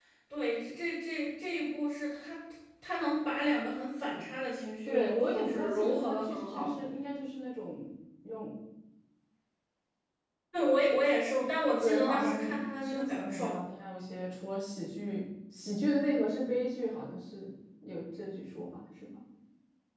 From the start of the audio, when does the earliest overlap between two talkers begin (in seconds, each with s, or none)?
4.8 s